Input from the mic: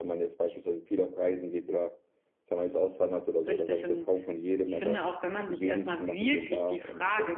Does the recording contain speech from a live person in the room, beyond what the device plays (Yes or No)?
Yes